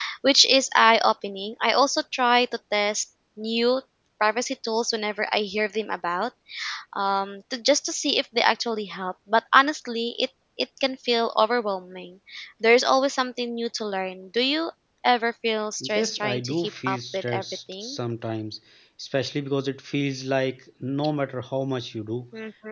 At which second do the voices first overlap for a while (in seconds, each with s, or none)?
15.8 s